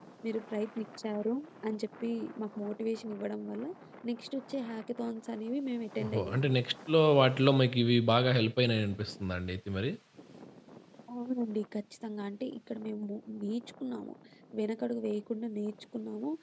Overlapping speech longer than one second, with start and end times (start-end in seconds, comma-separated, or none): none